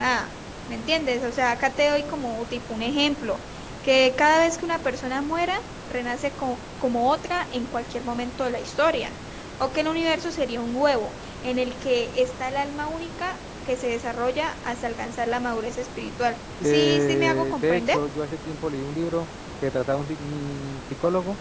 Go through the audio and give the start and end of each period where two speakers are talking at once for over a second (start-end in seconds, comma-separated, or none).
16.6-18.0